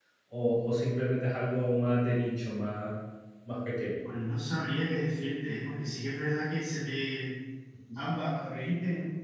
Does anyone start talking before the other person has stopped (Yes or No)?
No